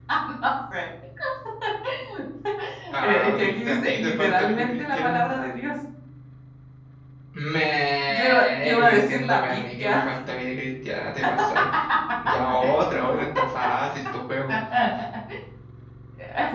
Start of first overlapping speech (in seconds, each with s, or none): 3.0 s